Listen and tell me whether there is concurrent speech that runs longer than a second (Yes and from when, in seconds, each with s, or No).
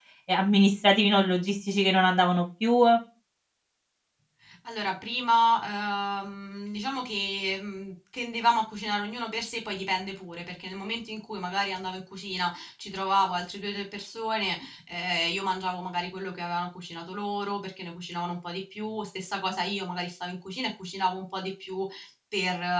No